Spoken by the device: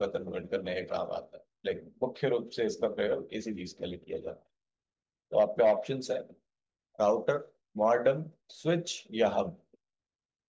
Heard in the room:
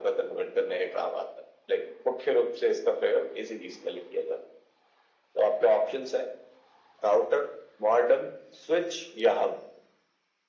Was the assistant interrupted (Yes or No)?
No